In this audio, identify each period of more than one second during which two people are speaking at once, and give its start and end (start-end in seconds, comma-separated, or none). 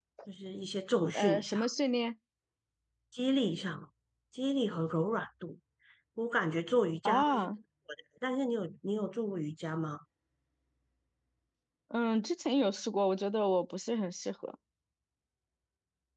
none